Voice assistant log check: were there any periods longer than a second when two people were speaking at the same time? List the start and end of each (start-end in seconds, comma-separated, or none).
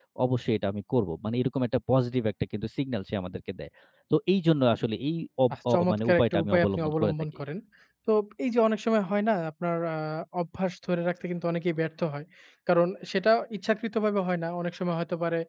5.7-7.1